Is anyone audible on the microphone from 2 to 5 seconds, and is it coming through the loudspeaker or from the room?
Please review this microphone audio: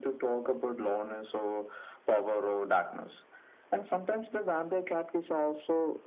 echo only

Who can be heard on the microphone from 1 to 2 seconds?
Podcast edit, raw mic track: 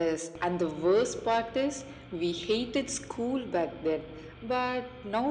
echo only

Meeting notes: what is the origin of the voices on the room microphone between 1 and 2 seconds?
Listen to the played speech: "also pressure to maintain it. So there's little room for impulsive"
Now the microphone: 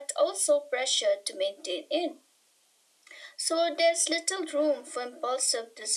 echo only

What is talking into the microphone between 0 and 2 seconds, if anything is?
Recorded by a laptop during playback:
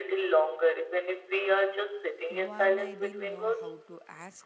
echo only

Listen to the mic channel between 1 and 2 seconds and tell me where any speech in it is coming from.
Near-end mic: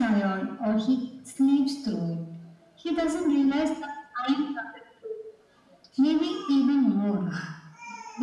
echo only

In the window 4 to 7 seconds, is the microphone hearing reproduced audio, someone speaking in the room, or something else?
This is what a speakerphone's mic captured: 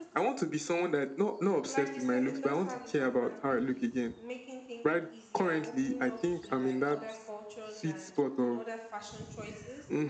both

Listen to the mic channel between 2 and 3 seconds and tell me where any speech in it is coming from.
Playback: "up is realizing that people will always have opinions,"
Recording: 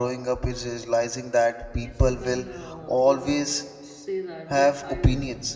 both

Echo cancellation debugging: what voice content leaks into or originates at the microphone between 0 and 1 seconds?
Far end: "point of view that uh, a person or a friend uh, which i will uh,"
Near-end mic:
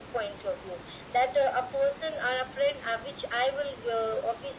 echo only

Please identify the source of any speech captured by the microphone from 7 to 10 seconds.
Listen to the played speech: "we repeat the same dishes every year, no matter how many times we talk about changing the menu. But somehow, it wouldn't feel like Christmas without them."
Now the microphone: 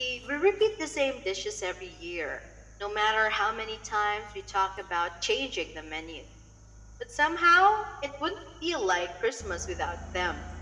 echo only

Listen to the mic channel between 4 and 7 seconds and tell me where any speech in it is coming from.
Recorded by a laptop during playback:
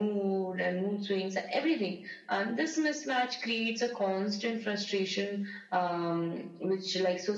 echo only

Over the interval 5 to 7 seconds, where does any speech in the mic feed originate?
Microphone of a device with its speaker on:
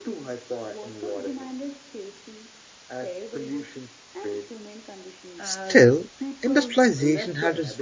both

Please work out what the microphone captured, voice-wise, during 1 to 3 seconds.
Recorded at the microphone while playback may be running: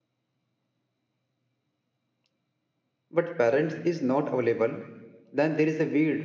neither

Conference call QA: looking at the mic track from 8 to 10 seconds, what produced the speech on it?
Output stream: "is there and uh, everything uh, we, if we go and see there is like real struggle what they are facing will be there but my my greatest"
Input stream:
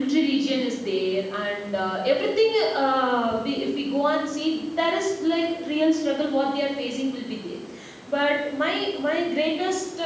echo only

